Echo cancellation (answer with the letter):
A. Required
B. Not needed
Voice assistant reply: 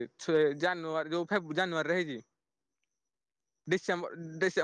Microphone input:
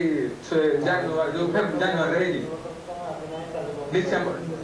A